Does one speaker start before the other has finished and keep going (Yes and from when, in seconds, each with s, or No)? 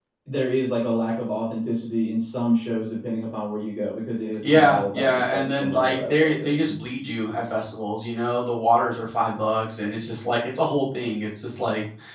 Yes, from 4.4 s